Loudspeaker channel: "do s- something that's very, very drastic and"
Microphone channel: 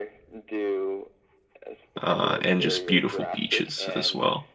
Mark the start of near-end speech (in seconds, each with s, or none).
2.0 s